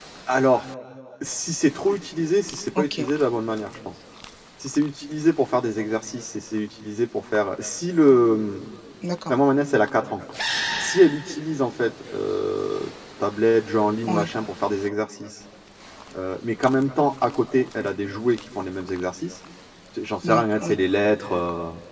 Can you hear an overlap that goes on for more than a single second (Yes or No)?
No